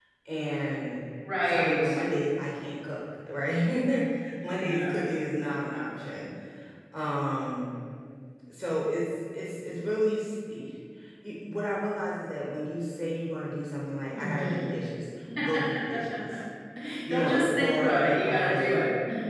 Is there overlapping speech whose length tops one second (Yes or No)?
Yes